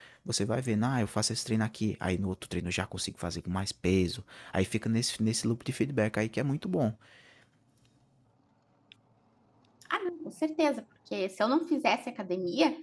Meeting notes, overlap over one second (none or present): none